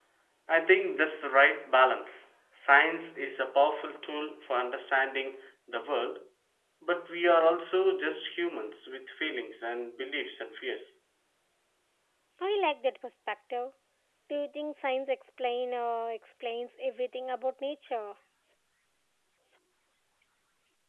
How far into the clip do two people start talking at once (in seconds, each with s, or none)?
none